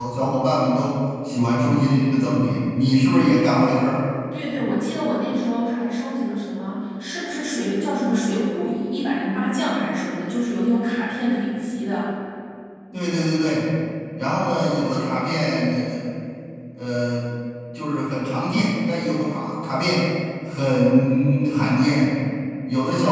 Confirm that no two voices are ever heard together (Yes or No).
Yes